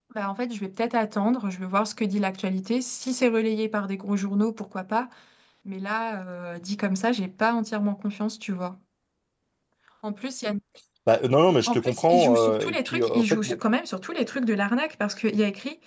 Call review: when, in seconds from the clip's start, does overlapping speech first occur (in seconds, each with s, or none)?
11.7 s